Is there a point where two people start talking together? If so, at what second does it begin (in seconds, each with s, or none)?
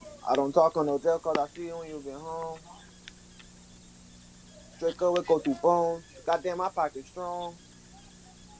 none